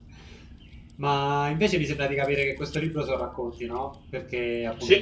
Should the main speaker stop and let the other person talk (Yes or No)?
No